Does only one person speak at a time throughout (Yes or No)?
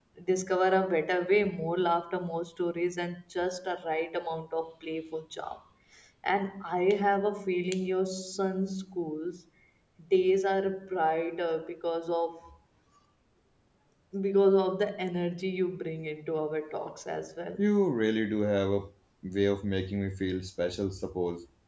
Yes